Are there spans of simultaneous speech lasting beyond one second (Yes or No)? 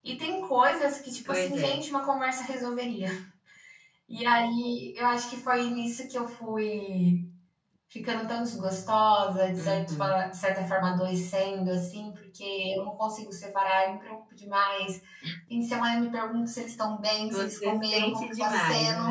Yes